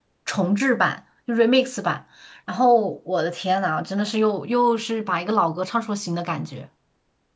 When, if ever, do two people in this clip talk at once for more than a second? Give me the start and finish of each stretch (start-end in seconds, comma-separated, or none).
none